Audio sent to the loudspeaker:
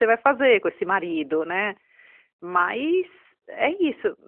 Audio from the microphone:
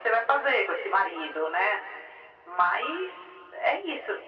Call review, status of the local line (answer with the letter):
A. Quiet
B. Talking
A